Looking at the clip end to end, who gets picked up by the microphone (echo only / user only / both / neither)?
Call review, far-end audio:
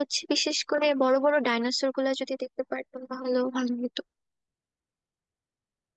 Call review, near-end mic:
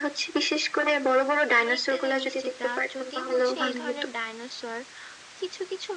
both